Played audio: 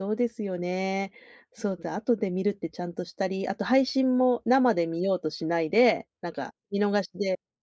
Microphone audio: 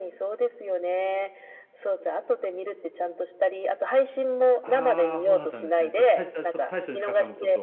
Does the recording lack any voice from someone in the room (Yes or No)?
No